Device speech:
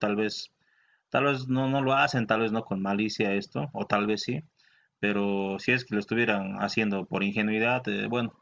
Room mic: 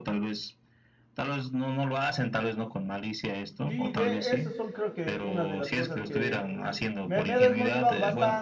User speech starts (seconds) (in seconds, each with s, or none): 3.7 s